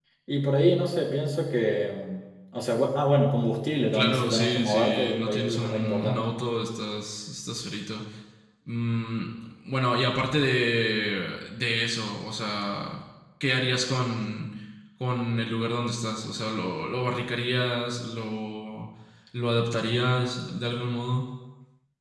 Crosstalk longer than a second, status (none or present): present